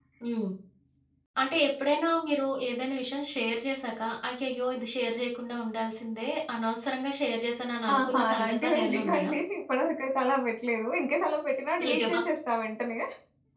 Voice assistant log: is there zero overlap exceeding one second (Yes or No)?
No